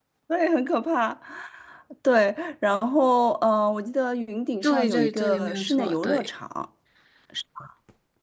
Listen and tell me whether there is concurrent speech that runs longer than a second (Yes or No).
Yes